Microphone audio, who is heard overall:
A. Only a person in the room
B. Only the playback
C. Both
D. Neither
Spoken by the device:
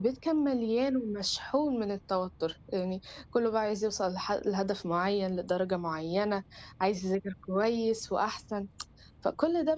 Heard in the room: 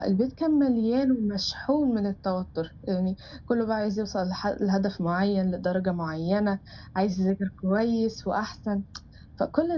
B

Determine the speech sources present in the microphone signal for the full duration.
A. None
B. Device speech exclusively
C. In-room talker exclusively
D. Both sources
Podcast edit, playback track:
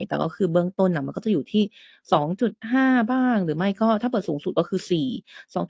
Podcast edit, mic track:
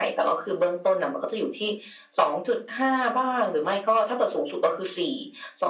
B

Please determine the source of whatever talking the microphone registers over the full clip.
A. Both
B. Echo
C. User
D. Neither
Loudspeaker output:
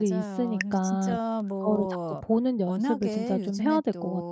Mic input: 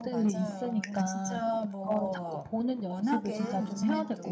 A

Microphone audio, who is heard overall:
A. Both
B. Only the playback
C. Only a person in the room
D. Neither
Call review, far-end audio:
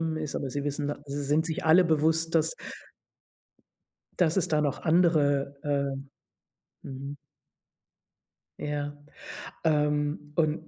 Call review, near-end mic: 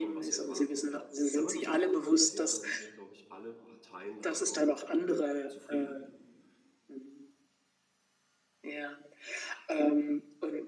A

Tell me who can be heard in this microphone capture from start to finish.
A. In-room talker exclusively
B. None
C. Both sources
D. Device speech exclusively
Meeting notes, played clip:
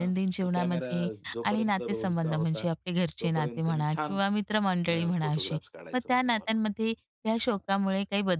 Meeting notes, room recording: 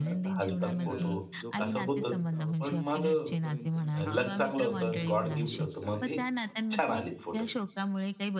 C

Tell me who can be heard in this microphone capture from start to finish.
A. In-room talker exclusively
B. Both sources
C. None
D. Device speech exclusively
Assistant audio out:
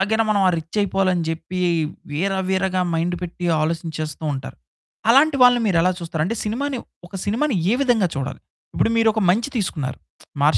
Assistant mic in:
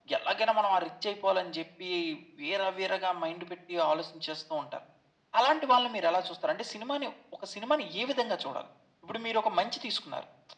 D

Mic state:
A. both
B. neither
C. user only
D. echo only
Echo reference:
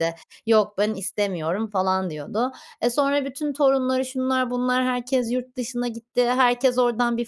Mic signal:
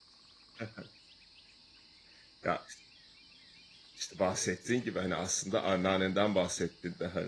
C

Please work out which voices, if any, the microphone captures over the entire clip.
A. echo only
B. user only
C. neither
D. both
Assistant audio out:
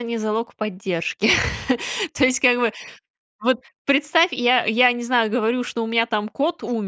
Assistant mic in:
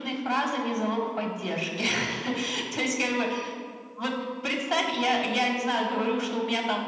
A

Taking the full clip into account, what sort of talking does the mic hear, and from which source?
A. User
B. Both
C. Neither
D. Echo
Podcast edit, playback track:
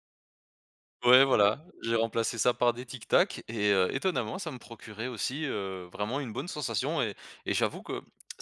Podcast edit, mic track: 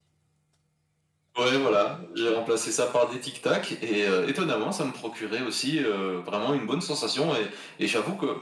D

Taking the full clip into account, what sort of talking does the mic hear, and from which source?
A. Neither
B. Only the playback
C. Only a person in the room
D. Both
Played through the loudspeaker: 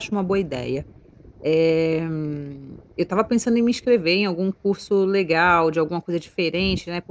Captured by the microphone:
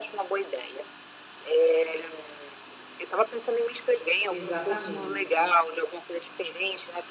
D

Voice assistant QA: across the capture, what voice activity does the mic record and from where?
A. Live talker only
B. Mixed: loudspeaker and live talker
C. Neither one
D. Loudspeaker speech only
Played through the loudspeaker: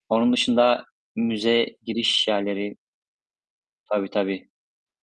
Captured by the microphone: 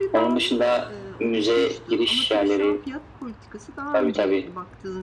B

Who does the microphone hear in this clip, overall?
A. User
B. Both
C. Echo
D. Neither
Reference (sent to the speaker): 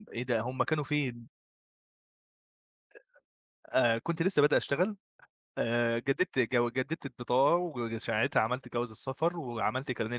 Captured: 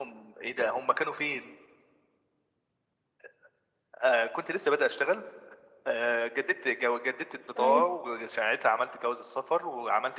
B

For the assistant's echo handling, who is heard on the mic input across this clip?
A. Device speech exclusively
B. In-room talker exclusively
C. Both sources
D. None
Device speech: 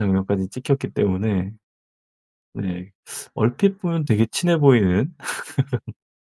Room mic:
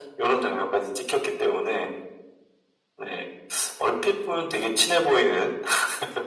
A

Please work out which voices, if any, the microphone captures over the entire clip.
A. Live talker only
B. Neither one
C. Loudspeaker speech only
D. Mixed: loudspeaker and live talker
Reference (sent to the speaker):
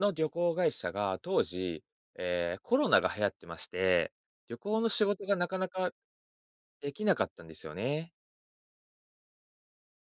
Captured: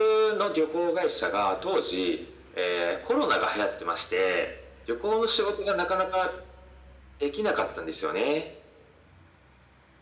C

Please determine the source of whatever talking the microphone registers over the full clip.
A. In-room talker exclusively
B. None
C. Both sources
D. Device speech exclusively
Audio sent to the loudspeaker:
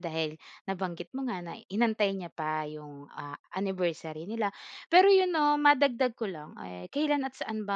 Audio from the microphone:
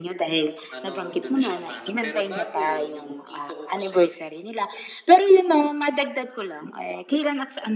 C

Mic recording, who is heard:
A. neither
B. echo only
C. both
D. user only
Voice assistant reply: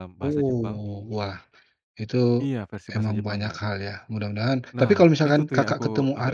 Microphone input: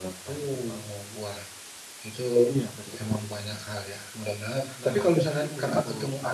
B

